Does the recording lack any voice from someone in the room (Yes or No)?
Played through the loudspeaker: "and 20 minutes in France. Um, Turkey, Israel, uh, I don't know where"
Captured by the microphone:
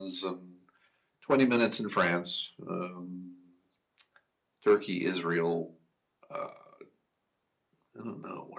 Yes